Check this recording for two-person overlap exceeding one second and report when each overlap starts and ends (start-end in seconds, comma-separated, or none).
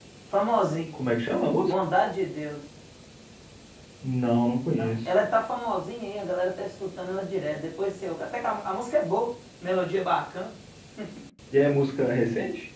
none